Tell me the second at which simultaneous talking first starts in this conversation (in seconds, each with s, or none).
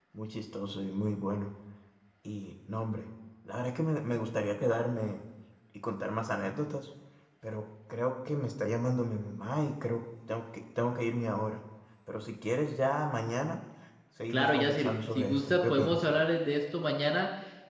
14.3 s